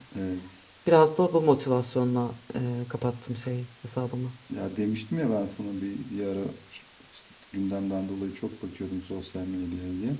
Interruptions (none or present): none